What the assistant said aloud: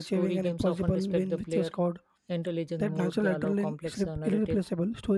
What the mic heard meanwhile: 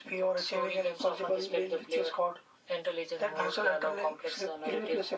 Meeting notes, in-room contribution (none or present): none